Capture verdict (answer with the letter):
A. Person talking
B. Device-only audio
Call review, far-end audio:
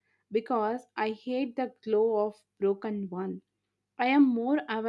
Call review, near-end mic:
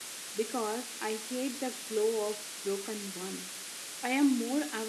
B